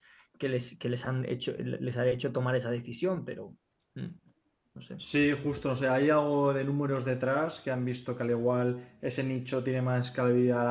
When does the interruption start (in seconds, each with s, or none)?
none